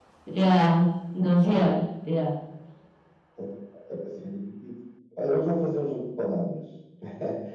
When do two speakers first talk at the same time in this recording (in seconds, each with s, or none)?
none